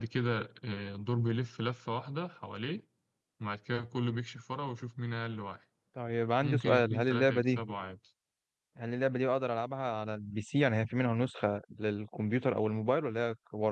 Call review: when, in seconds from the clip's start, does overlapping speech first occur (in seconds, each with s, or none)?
6.4 s